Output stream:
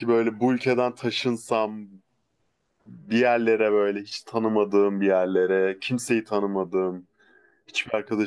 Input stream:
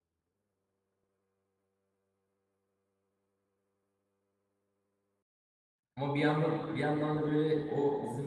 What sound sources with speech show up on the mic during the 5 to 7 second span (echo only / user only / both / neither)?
user only